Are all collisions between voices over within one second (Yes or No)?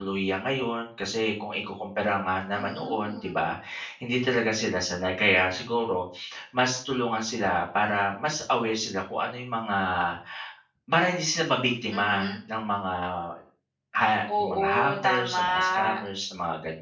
No